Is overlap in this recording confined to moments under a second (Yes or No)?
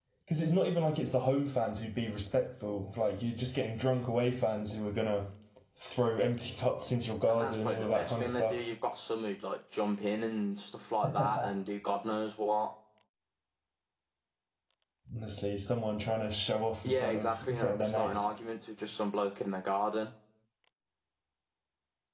No